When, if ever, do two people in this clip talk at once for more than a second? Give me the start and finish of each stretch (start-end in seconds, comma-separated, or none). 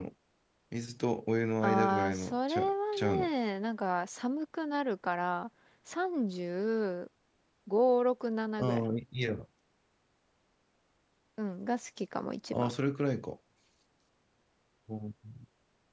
1.6-3.3